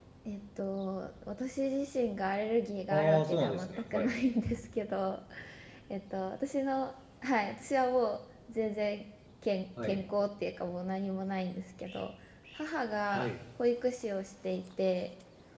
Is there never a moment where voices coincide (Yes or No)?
No